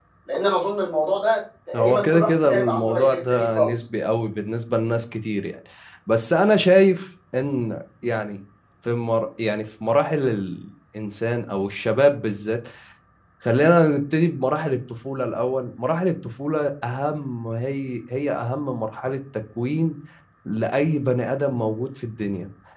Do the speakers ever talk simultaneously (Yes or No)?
Yes